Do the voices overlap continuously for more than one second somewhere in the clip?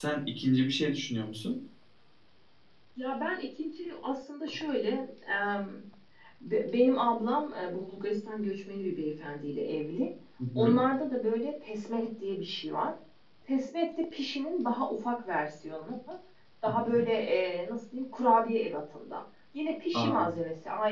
No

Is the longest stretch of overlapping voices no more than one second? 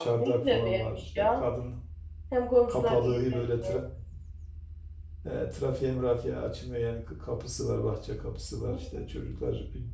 No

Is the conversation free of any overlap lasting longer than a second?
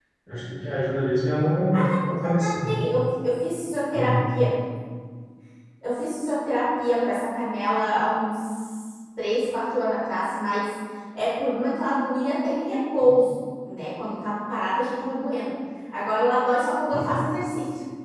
Yes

